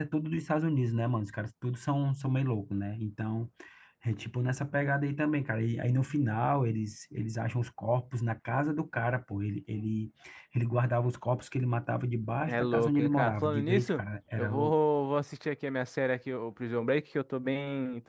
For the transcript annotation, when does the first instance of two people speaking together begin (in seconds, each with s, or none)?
12.5 s